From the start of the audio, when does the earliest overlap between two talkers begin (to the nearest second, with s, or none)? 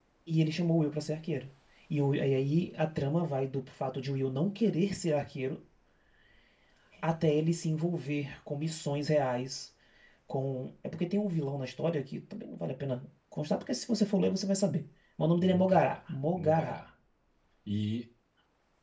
15 s